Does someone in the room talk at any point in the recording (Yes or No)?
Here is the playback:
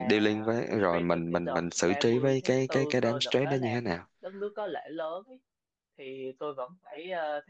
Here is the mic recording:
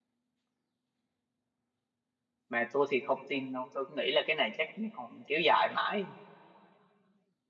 Yes